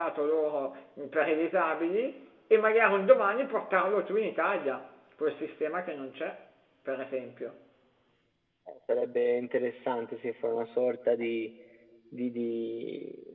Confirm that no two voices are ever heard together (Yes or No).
Yes